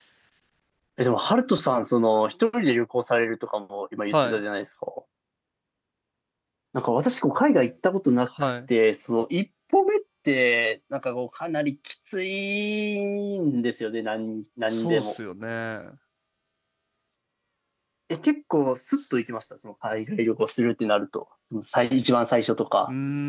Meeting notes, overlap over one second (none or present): none